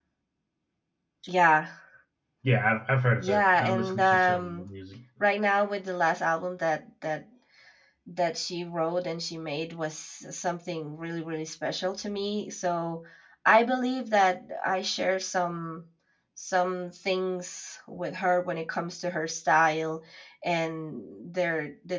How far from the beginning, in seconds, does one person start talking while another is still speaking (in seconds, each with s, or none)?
3.2 s